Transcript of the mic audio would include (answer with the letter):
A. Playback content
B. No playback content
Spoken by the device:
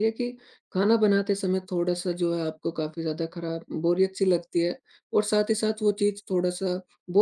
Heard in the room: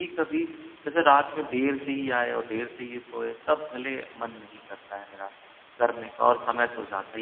B